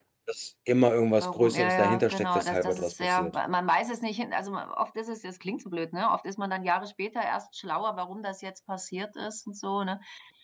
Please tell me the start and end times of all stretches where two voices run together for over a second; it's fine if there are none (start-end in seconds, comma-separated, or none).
1.2-3.4